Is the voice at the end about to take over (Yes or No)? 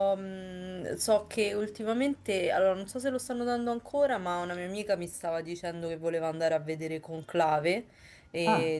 No